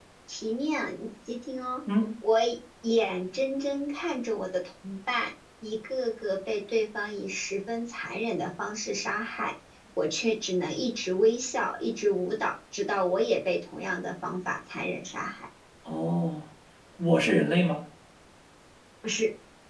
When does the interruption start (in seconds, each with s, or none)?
none